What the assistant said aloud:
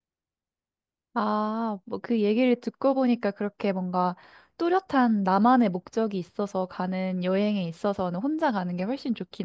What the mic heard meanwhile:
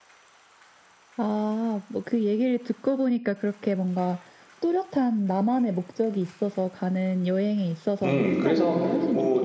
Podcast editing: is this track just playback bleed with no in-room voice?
No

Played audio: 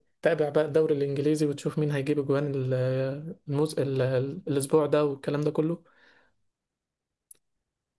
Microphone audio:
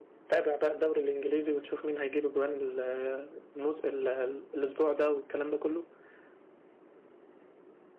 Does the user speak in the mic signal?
No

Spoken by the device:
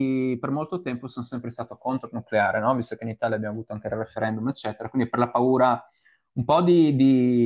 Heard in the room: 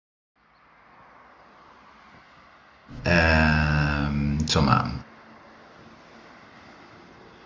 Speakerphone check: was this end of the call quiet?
No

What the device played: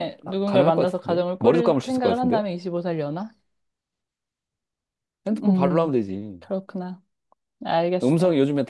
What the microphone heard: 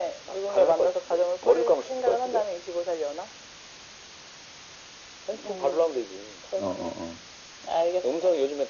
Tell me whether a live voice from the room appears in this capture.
Yes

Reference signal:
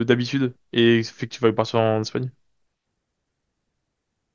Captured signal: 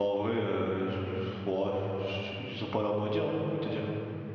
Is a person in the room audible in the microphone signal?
Yes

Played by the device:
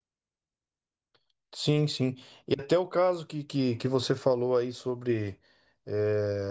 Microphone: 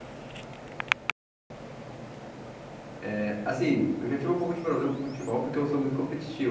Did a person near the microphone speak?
Yes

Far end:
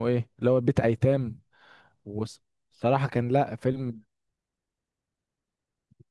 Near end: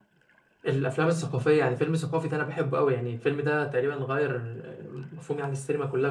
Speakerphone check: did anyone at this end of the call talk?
Yes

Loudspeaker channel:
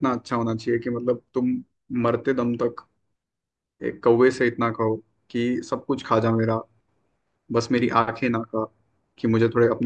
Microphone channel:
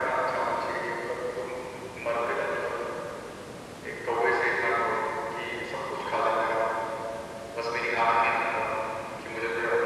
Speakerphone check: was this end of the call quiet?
Yes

